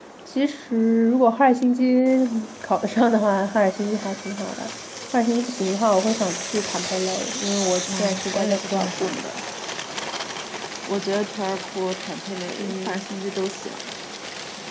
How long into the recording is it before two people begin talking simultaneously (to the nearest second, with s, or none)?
8 s